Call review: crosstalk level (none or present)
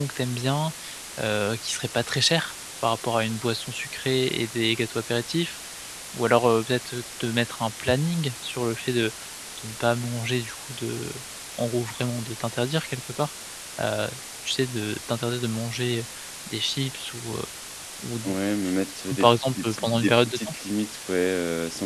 present